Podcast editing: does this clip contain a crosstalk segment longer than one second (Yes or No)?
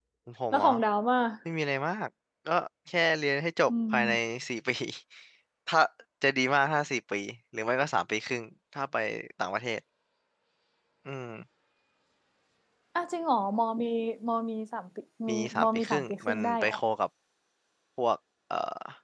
Yes